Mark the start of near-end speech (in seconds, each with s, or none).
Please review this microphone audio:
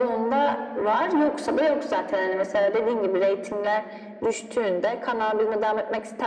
none